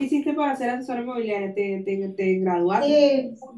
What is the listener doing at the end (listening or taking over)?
taking over